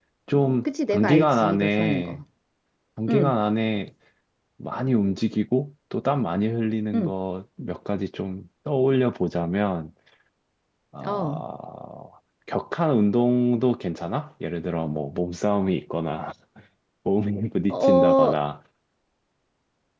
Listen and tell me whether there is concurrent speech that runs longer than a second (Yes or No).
Yes